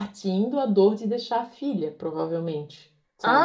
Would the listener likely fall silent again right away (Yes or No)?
No